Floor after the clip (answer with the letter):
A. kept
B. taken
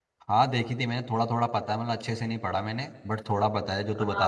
B